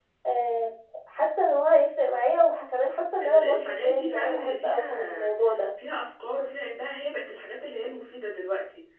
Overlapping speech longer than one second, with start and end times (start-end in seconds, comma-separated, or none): 3.2-5.3